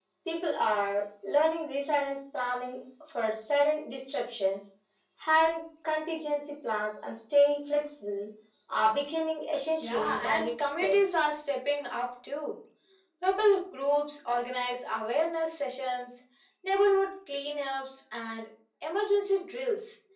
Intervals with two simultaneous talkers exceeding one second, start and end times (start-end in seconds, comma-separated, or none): 9.8-11.2